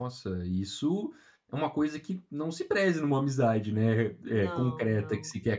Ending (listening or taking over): listening